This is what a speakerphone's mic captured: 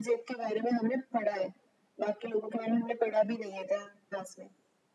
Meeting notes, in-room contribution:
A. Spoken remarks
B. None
B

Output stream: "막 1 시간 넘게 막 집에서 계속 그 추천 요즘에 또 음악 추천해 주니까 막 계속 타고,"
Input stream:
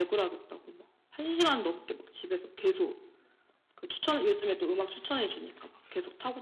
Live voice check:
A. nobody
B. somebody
A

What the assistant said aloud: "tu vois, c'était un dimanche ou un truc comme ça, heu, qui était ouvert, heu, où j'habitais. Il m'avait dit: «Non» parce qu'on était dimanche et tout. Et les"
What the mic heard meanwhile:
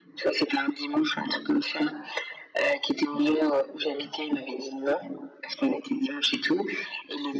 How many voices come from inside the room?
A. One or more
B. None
B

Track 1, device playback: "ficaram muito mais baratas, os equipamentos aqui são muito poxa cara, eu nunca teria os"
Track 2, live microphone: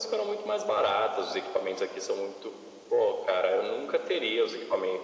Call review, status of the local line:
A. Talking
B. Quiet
B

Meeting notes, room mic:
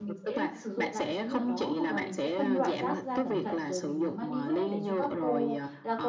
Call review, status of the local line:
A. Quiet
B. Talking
B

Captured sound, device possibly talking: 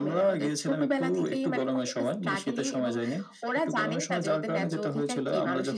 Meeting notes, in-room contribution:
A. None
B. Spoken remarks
A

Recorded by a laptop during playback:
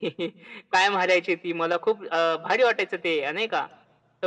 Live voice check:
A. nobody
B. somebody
A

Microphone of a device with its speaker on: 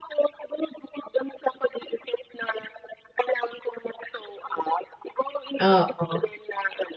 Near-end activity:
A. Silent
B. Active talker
B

